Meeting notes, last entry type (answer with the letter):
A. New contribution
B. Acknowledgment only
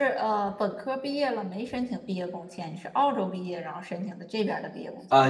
A